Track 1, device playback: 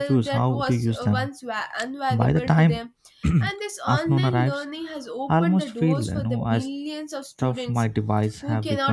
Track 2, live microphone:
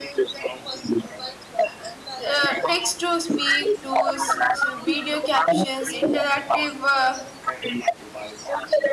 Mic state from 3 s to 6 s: both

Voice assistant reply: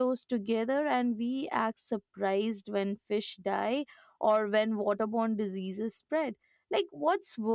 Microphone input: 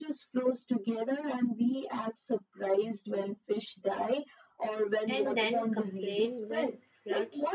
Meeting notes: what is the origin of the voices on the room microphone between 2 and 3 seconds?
echo only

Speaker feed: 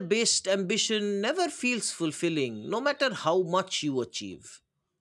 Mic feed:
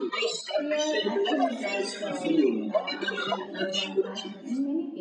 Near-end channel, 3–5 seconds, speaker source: both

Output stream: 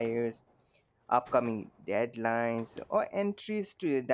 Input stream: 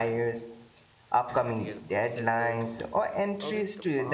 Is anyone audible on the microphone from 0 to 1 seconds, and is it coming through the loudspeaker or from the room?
echo only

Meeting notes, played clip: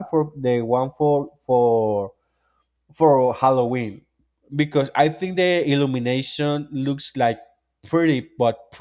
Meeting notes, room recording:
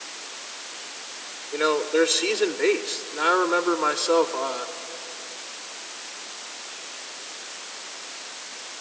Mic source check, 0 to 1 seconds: neither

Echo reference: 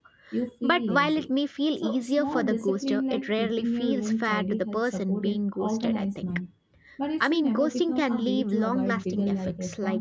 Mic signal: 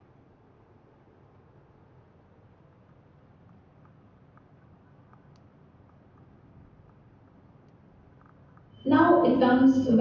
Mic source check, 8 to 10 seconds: user only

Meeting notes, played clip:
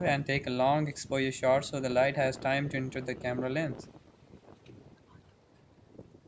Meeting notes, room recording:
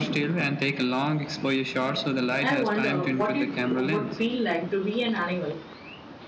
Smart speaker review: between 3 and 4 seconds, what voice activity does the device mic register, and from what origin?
both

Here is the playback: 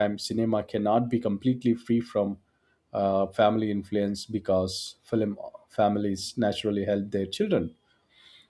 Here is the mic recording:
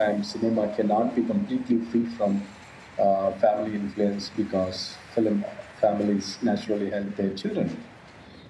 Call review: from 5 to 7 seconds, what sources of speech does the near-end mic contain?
echo only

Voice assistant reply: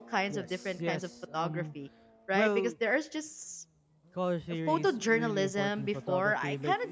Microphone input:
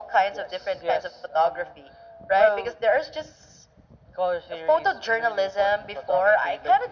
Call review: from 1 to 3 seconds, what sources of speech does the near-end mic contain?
echo only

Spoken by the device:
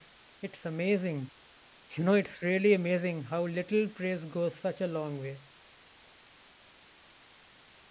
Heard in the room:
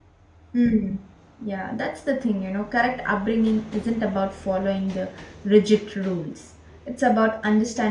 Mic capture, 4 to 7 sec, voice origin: user only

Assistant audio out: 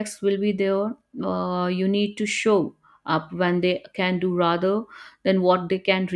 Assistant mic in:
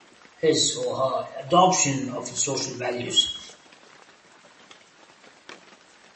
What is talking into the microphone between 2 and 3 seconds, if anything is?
user only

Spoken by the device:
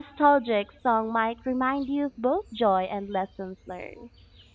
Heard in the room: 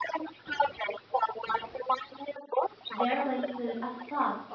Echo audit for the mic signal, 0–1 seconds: echo only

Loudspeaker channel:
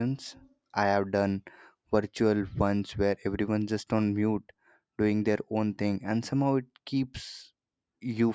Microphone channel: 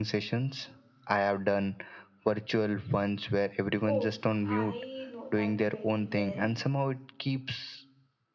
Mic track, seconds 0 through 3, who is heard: echo only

